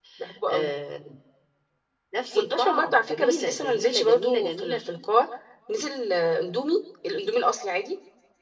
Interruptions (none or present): present